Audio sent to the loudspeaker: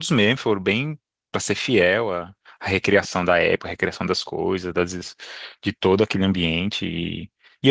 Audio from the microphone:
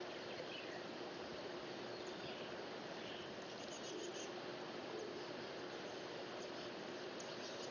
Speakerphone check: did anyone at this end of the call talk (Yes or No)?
No